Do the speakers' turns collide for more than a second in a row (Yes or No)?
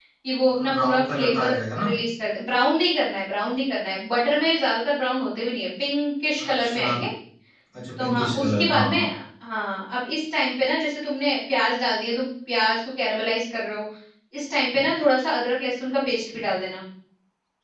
Yes